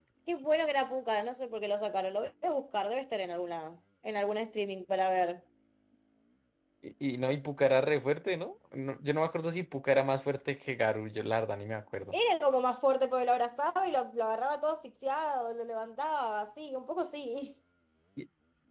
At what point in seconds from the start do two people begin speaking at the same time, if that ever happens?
none

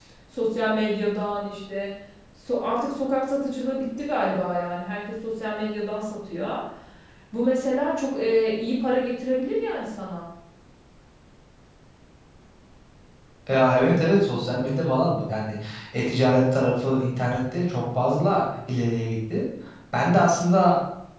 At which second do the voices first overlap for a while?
none

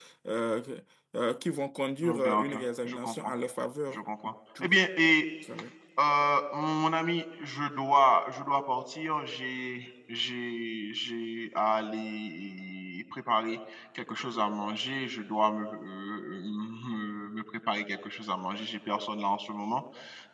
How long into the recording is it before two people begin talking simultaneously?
2 s

